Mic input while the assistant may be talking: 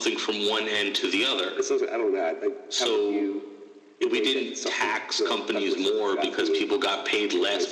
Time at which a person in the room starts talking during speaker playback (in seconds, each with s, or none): none